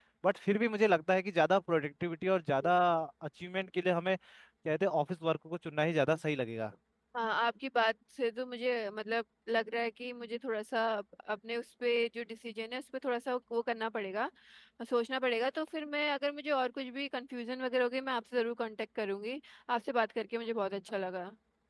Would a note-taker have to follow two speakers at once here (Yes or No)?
No